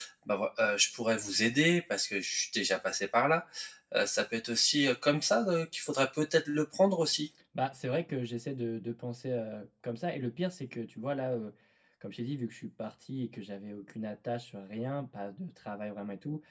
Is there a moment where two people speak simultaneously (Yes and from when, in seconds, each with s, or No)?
No